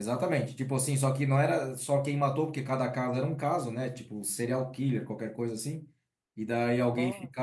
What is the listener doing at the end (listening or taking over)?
listening